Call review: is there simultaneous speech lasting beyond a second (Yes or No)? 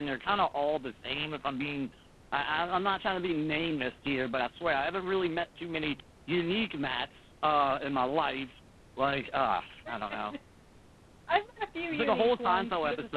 Yes